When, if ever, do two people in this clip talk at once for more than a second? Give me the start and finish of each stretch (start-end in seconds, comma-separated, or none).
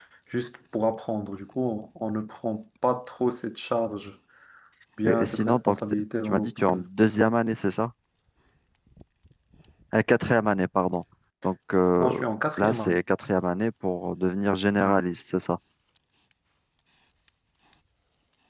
5.0-6.8